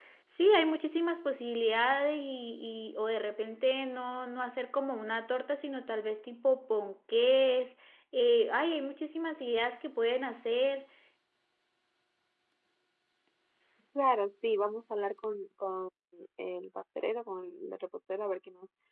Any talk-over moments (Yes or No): No